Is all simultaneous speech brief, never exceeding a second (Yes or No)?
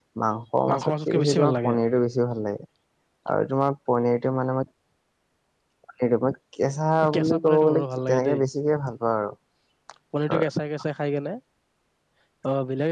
No